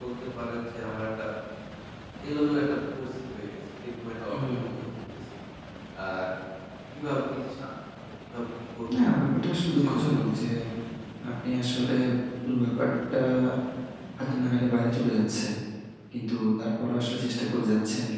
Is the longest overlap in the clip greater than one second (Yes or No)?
Yes